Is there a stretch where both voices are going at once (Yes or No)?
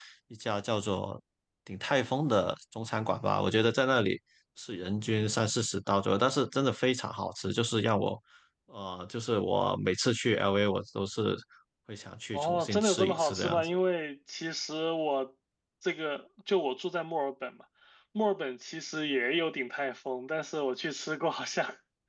Yes